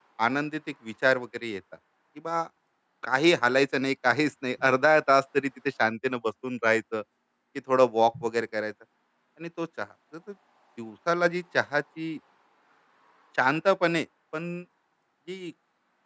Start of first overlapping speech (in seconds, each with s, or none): none